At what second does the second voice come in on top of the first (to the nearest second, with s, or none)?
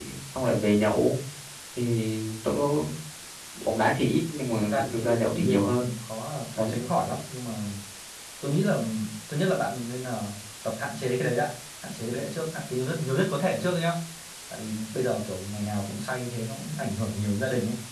5 s